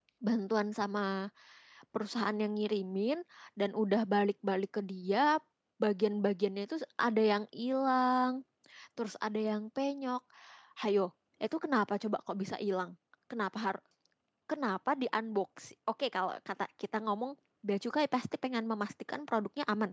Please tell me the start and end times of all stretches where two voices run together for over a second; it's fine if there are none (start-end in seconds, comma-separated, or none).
none